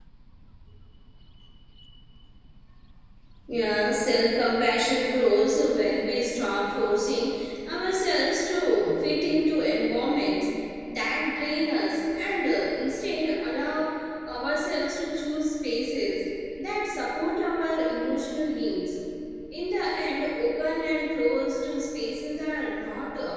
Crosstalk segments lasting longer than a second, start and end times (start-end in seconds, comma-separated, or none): none